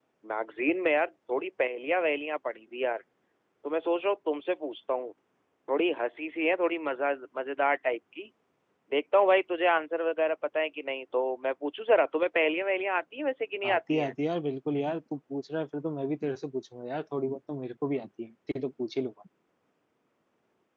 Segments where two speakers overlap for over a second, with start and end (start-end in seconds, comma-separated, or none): none